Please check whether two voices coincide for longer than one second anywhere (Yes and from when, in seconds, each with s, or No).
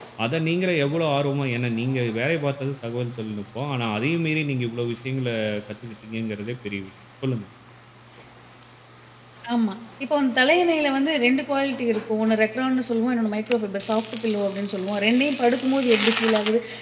No